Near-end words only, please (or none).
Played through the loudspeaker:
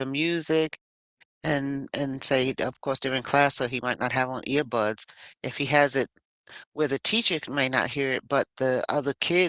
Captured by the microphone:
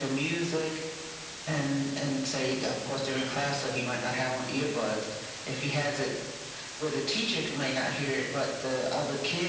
none